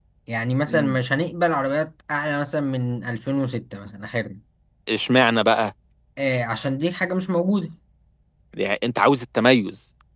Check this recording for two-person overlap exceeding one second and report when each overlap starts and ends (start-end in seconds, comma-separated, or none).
none